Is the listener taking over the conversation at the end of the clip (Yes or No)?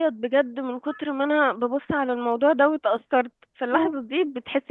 No